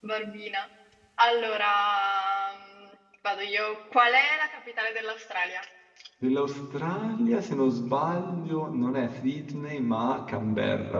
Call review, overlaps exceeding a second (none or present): none